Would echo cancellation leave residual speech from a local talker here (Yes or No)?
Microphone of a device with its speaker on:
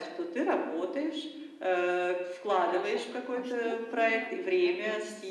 Yes